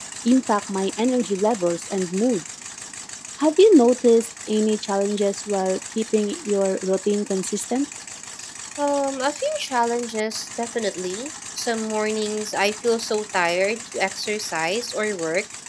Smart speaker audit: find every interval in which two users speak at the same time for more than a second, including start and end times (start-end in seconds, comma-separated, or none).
none